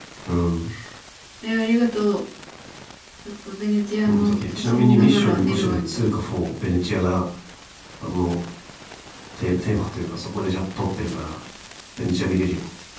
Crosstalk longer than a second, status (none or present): present